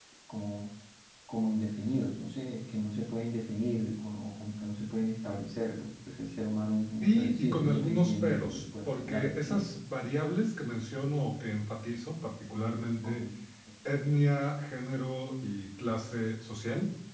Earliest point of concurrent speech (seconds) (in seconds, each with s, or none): 7.0 s